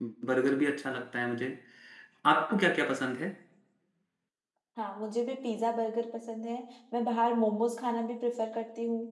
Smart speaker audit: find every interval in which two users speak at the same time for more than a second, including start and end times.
none

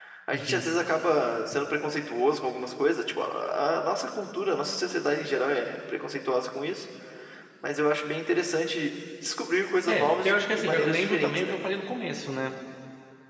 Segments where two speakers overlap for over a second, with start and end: 9.9-11.5

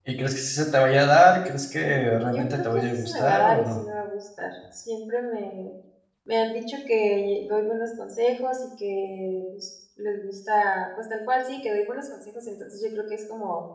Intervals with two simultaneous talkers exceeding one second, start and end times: 2.3-3.8

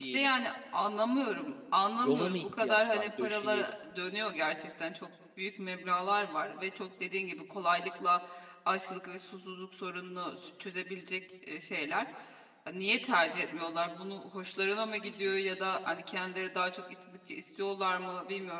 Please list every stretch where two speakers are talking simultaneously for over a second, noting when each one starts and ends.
2.0-3.7

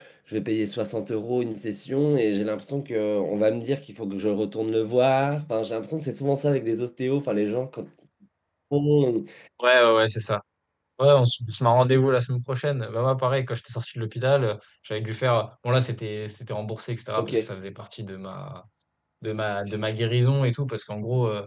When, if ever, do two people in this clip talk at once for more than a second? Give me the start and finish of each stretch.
none

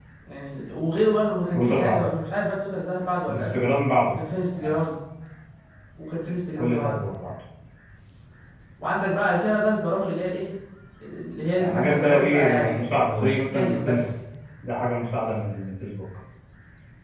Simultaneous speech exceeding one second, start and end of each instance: 11.6-14.1

